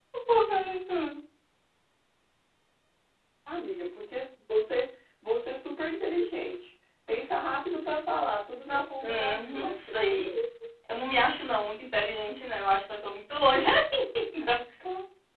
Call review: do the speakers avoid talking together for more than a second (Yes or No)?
No